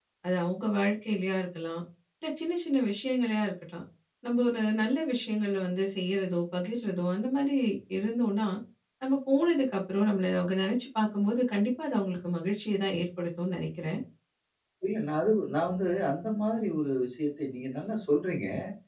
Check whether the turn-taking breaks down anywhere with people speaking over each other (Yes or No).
No